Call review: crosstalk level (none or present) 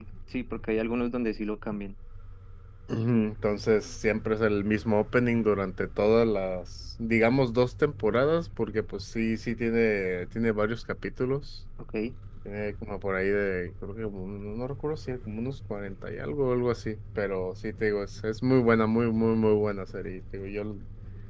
none